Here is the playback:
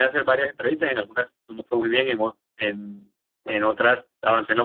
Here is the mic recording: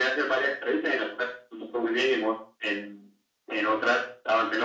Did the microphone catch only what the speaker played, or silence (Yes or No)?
Yes